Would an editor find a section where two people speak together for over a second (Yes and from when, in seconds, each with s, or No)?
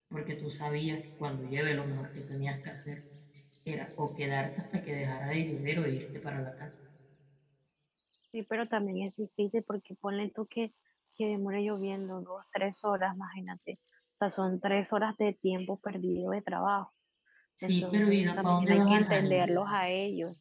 Yes, from 17.6 s